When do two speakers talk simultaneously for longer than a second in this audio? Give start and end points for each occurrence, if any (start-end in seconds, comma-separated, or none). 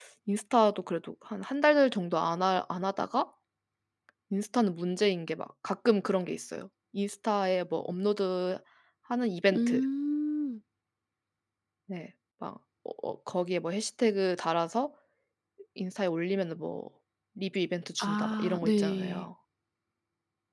18.0-19.2